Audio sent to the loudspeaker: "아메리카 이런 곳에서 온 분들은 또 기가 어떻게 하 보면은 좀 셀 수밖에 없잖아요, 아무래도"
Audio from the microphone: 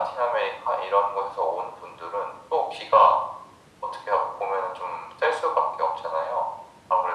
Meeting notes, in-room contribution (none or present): none